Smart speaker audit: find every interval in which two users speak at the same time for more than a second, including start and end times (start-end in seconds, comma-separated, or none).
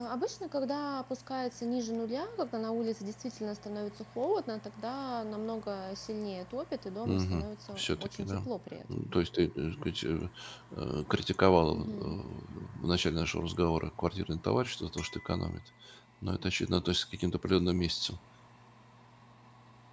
7.0-8.5